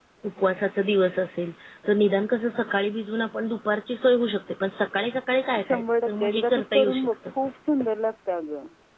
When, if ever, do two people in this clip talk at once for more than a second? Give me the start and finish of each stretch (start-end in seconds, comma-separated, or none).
5.6-7.1